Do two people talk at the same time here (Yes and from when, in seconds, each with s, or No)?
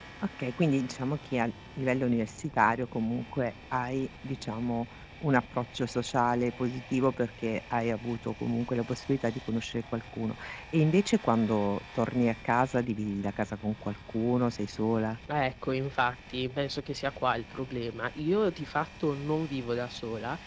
No